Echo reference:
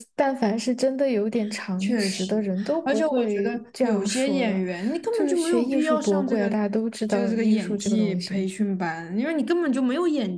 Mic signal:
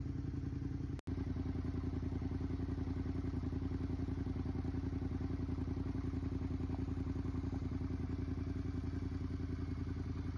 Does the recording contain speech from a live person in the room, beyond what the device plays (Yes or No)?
No